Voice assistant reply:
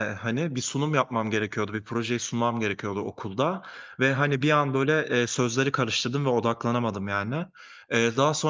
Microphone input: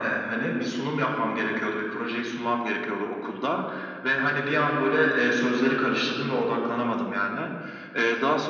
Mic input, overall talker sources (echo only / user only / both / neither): echo only